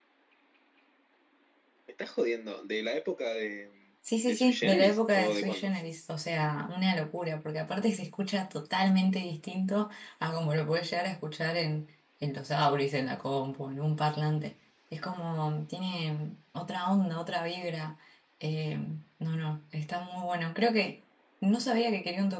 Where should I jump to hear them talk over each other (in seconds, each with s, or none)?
4.3 s